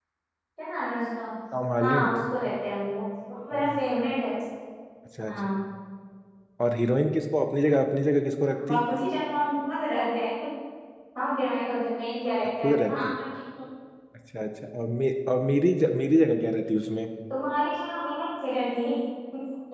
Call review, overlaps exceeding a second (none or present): none